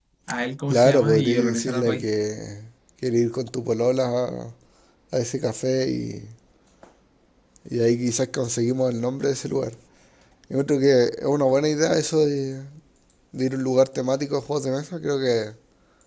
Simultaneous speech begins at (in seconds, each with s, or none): 0.7 s